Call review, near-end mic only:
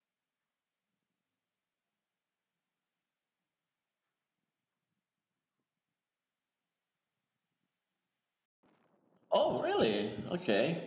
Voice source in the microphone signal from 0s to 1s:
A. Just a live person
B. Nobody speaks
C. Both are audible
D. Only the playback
B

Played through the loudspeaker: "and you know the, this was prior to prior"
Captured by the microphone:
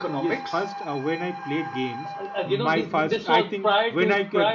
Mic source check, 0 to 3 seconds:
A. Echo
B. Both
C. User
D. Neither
B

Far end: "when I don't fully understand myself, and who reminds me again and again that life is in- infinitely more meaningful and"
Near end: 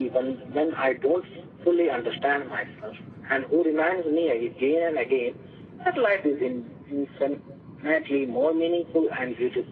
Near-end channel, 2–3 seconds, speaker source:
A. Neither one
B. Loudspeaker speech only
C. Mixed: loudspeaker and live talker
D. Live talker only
B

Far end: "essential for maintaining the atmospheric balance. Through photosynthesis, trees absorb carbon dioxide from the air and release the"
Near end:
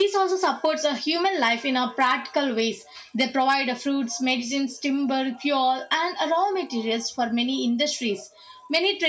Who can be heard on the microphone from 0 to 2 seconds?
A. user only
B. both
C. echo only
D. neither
A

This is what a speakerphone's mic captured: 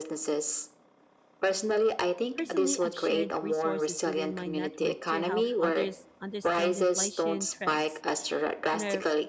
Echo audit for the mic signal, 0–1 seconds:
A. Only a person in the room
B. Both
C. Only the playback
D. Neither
C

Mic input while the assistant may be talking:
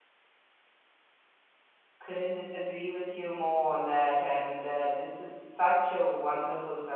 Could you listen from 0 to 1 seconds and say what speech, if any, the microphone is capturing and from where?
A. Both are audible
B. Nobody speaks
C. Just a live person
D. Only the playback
B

